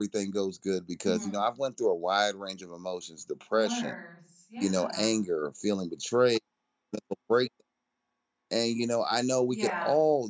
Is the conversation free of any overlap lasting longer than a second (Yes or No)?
Yes